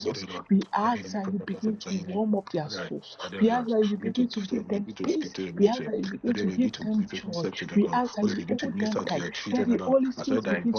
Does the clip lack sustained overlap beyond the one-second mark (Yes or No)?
No